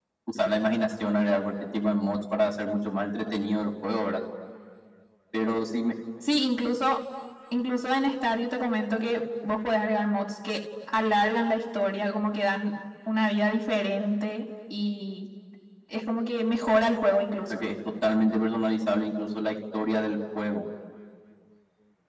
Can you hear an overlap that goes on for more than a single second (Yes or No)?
No